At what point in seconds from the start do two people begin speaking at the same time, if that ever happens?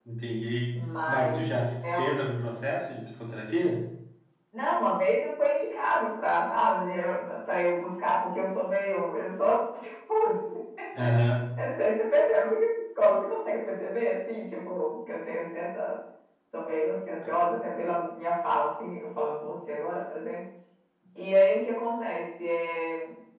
1 s

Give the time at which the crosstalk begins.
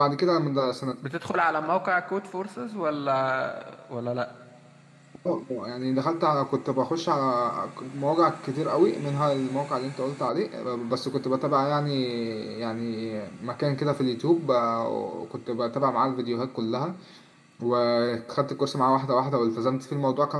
none

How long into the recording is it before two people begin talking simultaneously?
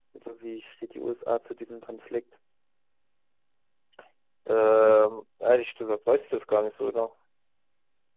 none

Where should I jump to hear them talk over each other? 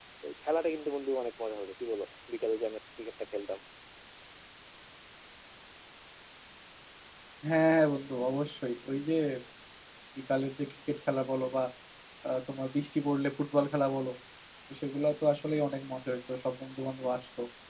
none

